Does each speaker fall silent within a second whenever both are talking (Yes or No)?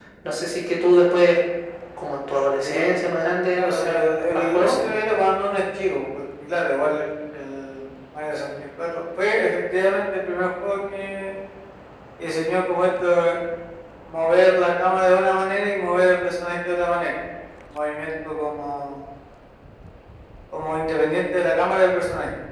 No